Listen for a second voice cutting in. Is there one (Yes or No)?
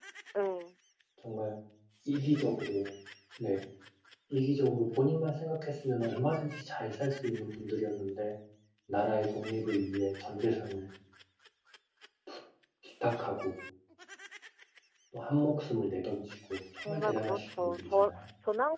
Yes